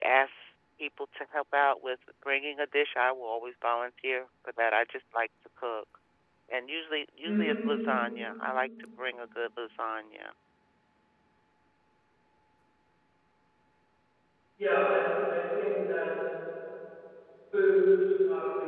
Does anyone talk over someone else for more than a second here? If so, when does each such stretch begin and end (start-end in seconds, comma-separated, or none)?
none